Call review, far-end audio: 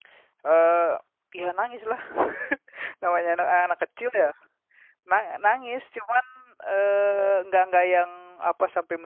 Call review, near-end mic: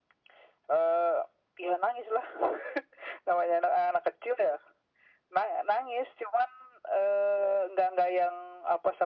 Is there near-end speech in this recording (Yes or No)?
No